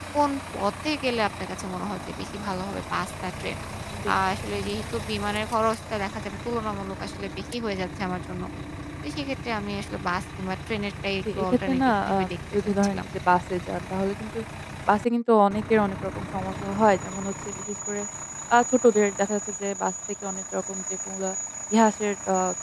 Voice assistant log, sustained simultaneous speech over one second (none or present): present